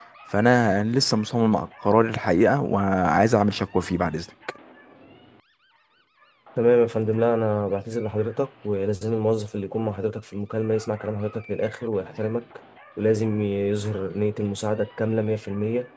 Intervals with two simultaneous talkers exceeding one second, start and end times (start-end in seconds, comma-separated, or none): none